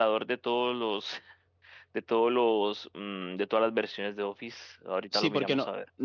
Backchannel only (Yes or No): No